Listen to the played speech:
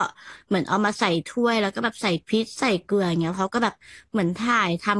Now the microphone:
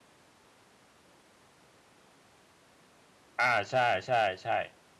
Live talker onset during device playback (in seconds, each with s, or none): 3.4 s